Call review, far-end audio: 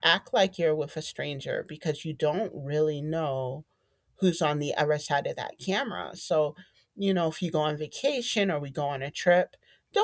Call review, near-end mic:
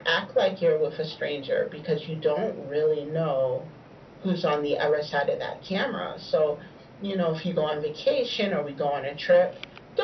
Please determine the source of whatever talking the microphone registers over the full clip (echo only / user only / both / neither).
echo only